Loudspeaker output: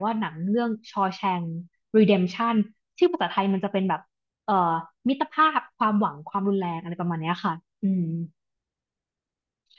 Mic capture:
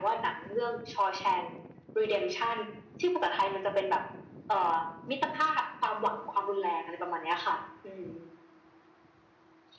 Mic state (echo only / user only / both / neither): echo only